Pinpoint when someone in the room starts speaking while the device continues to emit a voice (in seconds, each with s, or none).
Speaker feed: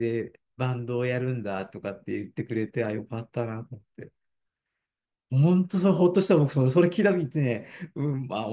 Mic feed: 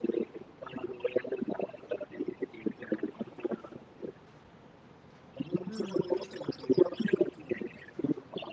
5.6 s